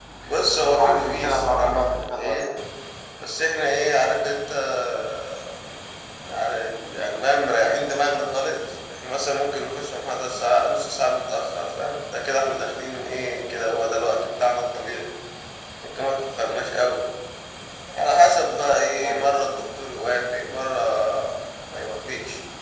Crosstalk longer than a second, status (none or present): present